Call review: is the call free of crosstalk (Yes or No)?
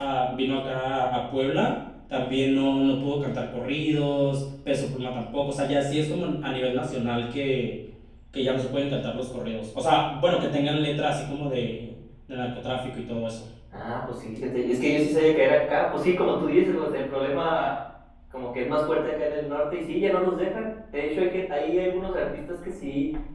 Yes